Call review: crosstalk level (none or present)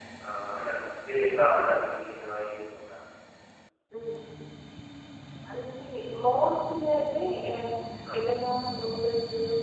none